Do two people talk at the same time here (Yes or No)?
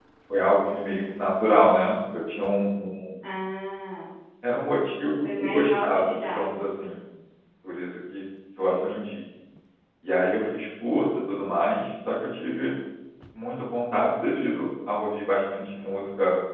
Yes